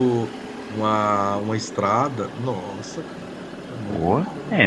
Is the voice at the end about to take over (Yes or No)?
Yes